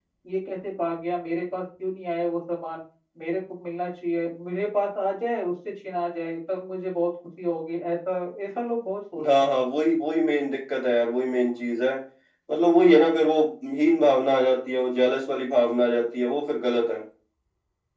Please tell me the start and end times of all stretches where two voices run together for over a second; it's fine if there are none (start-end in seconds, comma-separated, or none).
none